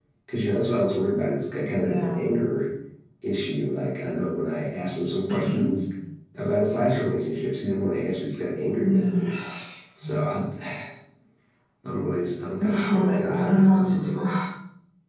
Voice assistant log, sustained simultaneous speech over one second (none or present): present